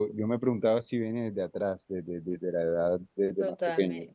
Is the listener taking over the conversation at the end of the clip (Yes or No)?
Yes